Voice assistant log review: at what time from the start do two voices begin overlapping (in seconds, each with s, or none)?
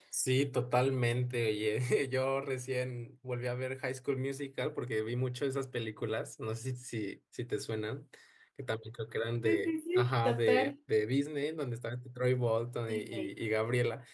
9.4 s